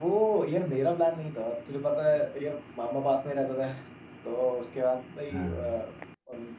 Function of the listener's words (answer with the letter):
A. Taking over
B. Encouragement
B